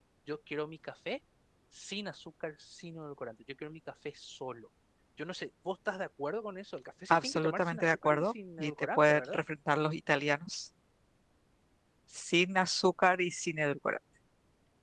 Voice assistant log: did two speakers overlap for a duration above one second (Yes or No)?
Yes